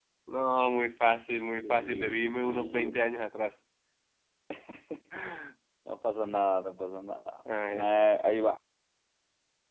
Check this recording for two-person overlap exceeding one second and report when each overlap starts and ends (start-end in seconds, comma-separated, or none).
1.6-3.0